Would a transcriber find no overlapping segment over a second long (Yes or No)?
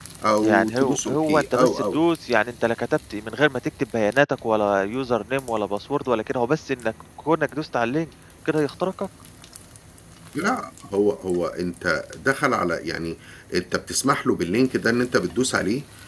No